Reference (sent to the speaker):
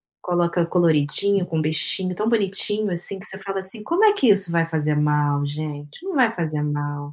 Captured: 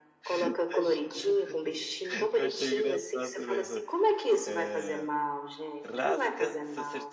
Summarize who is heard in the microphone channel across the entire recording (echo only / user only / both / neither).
both